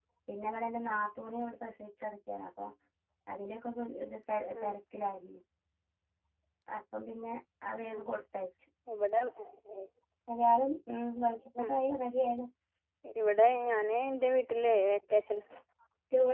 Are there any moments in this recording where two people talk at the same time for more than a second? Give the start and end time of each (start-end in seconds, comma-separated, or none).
none